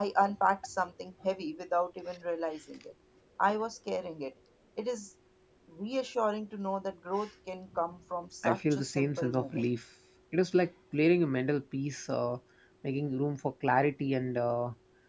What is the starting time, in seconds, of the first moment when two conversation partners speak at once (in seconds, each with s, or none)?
8.4 s